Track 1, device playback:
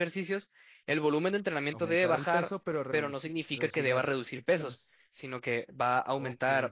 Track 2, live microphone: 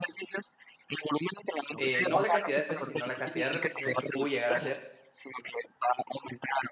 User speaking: Yes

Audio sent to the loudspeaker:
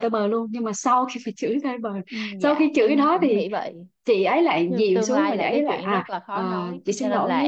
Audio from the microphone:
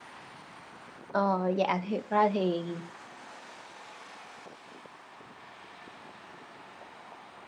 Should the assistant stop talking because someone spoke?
Yes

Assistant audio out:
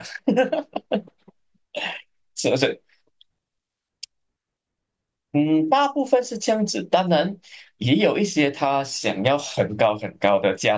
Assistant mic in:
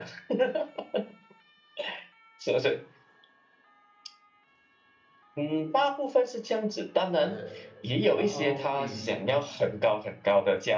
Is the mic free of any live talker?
No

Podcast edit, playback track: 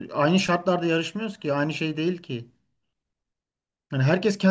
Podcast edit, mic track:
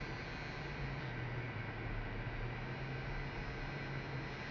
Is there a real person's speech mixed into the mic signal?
No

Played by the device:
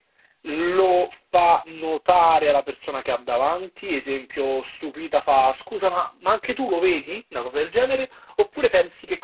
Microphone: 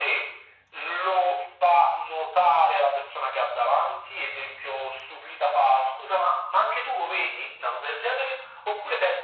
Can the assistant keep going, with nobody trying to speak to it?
Yes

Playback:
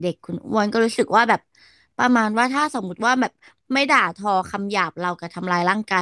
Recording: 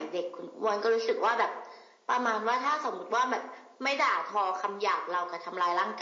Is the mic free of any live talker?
Yes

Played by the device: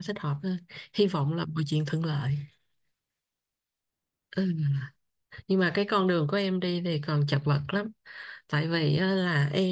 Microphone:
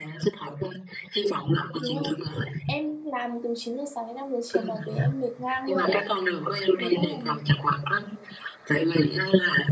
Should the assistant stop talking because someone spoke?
Yes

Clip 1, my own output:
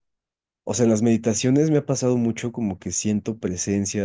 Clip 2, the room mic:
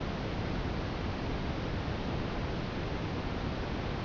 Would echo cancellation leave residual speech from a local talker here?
No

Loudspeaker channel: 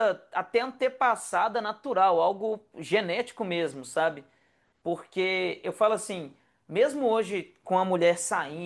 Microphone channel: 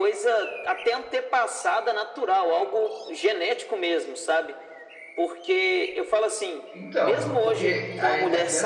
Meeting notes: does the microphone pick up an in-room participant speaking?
Yes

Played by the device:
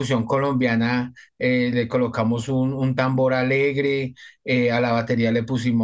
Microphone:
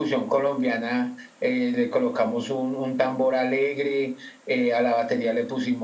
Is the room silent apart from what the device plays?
Yes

